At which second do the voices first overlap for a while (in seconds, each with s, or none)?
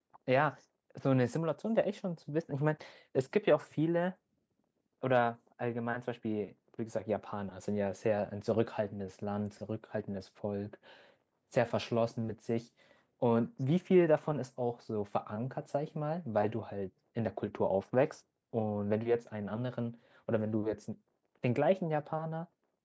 none